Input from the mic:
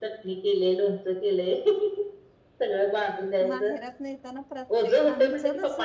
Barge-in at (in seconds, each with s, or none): 3.5 s